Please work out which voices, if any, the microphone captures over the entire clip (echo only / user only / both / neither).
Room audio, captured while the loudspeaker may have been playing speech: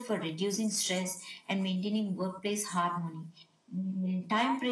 echo only